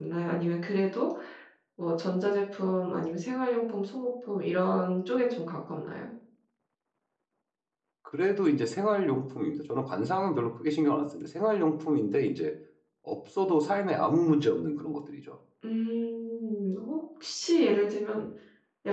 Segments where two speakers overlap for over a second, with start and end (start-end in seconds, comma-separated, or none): none